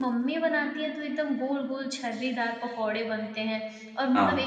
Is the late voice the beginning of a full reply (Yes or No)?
No